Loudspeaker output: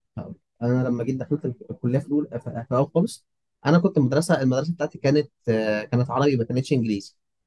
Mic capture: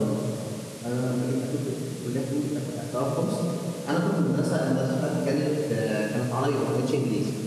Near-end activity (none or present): none